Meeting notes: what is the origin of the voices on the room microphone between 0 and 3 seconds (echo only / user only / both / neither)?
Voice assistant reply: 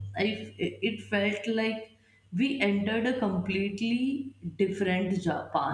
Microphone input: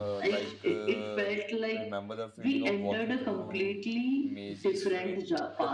both